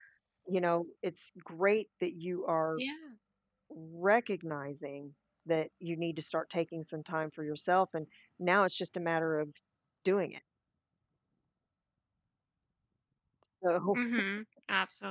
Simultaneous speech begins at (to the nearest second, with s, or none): none